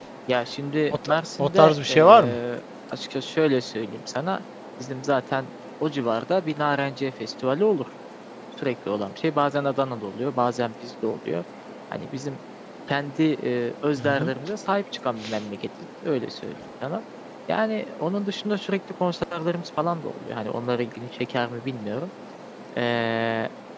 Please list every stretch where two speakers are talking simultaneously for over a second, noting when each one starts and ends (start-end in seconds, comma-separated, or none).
1.1-2.4